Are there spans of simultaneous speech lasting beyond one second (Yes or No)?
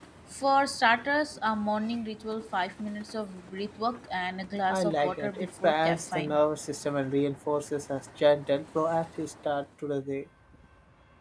Yes